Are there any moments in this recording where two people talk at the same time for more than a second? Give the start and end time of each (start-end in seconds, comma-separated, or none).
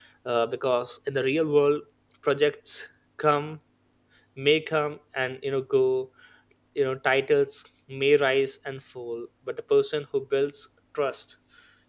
none